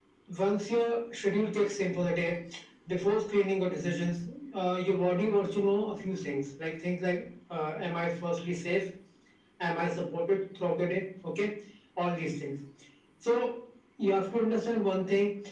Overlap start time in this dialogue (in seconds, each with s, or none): none